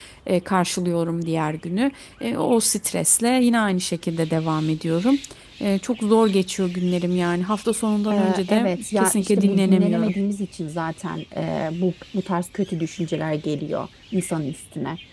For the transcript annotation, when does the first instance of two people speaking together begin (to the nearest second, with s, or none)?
8 s